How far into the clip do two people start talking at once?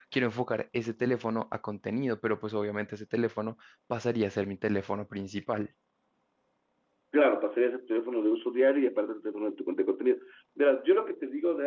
none

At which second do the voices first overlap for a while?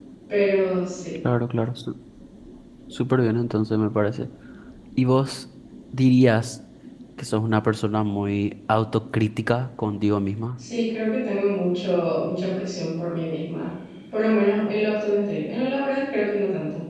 none

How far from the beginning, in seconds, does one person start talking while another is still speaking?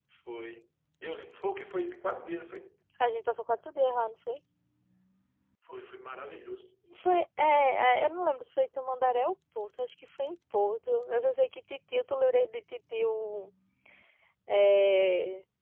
none

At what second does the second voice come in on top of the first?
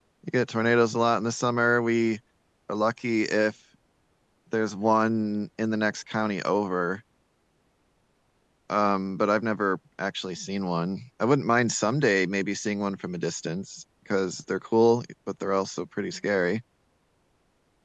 none

